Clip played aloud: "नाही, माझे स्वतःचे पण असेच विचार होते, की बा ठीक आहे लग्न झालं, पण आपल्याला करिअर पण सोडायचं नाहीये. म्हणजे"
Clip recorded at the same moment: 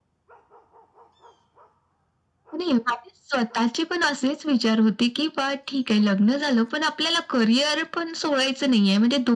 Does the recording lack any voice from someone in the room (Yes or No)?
Yes